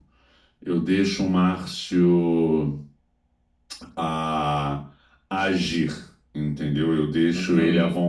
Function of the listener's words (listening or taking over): listening